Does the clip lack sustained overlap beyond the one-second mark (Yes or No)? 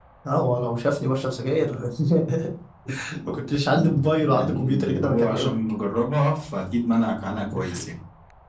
No